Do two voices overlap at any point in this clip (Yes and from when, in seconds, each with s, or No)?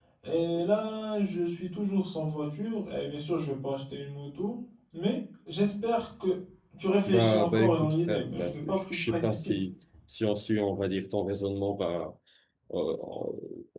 Yes, from 7.1 s